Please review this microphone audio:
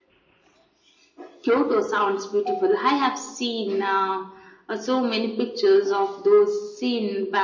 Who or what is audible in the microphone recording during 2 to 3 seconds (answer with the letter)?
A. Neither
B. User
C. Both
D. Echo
D